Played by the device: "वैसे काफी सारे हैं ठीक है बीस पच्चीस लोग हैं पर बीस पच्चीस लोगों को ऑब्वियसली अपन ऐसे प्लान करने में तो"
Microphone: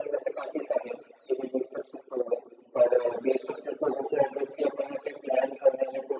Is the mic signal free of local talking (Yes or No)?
Yes